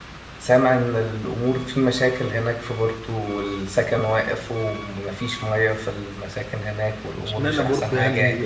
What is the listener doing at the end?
taking over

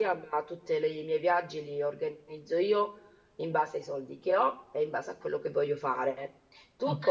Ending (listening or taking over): listening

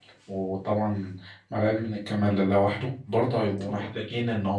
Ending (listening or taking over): listening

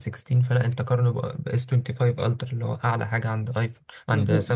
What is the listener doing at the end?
taking over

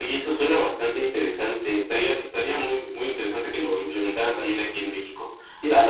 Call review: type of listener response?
listening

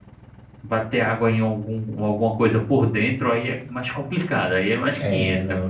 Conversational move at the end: taking over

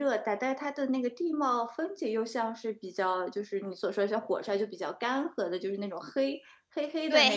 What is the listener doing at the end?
taking over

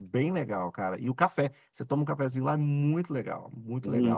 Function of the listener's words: taking over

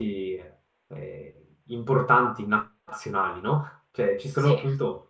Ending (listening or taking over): listening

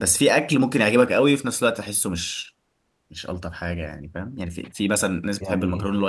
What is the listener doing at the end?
listening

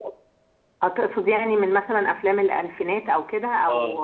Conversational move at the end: taking over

